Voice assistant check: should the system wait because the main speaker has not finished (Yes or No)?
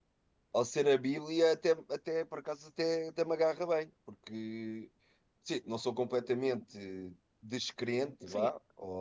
No